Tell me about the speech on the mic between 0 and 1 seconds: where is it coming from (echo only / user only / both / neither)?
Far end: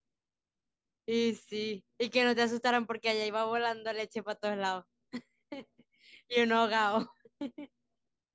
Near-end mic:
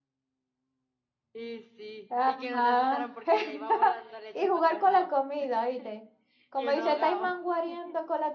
neither